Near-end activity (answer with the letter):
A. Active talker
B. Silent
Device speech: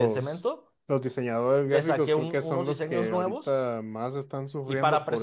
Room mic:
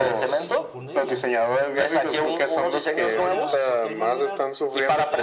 A